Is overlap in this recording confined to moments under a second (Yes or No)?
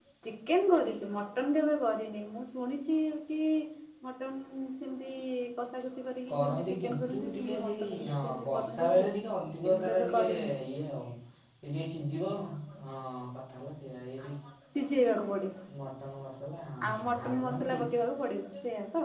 No